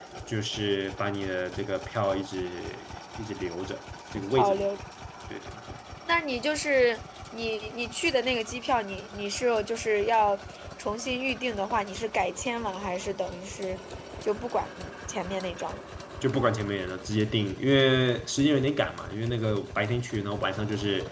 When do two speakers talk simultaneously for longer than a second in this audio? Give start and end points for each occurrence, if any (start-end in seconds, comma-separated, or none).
none